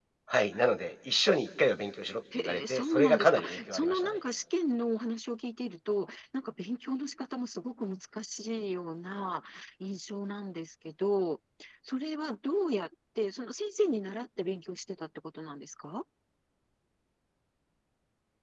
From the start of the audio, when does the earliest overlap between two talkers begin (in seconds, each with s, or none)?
2.3 s